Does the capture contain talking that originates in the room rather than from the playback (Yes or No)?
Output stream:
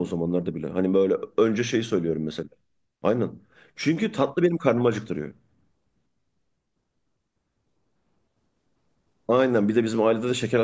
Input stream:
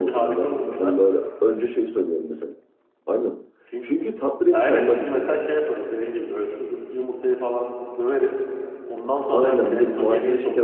Yes